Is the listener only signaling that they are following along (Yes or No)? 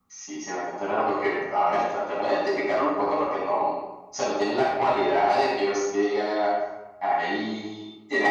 No